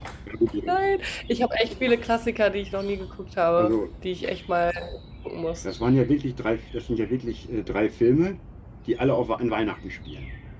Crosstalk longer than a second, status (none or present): none